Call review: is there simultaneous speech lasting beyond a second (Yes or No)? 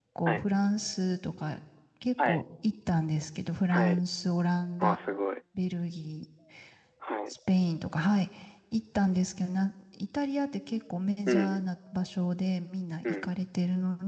No